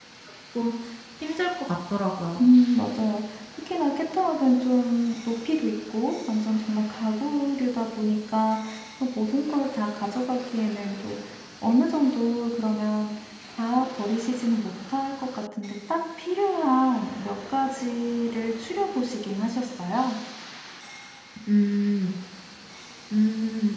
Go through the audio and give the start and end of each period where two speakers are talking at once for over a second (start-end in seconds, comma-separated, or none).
none